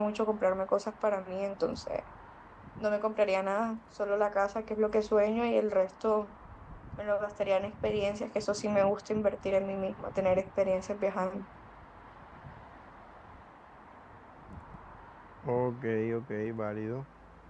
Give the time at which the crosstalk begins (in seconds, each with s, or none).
none